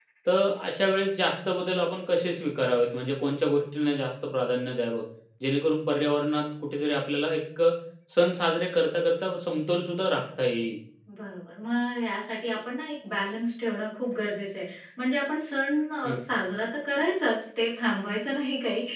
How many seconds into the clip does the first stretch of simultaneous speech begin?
none

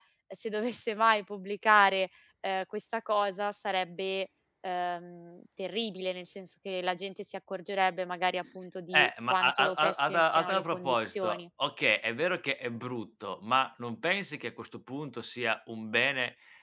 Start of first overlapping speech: 8.9 s

